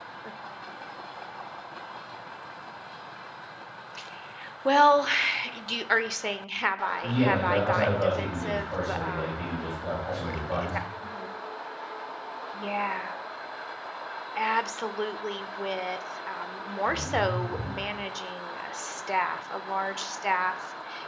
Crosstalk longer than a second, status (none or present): present